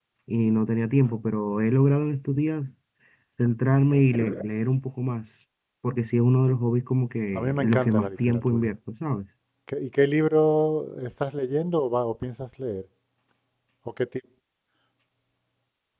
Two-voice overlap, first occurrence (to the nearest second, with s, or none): 7 s